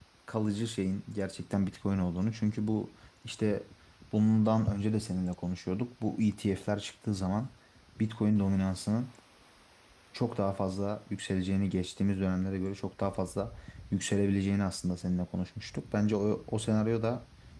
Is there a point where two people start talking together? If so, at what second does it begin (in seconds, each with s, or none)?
none